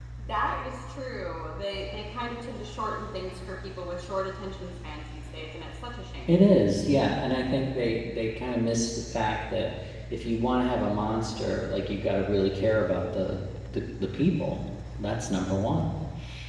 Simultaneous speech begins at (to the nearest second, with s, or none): none